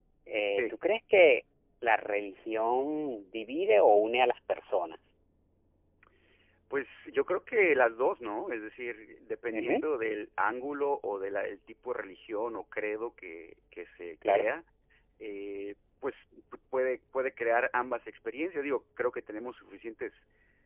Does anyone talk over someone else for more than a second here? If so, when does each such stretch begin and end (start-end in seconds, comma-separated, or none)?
none